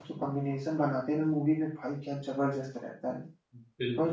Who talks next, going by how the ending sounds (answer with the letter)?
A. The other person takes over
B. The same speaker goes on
A